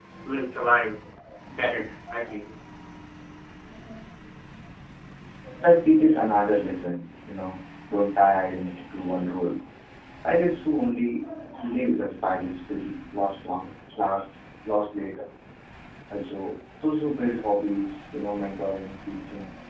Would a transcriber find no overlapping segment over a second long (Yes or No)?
Yes